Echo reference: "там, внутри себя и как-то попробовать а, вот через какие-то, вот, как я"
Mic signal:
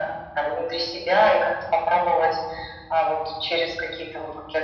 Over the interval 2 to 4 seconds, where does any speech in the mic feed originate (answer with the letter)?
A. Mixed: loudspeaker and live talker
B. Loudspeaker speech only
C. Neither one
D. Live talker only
B